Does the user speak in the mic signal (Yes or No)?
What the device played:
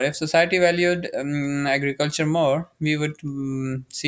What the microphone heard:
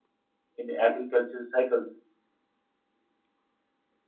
Yes